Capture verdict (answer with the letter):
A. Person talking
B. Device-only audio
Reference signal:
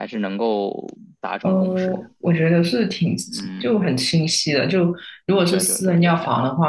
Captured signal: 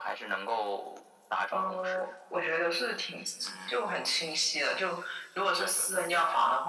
B